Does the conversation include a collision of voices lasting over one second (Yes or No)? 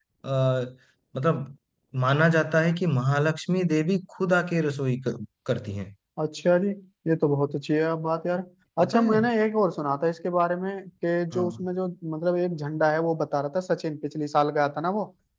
No